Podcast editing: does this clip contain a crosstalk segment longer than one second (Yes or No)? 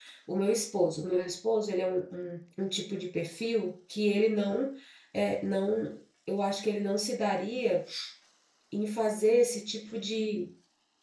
No